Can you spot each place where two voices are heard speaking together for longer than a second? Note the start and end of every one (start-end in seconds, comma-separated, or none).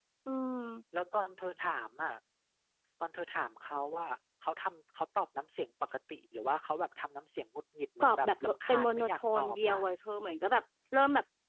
8.0-9.8